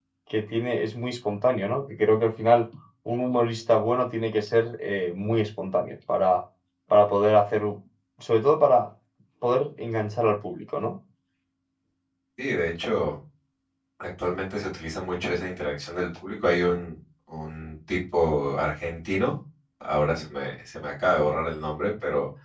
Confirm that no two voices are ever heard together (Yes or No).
Yes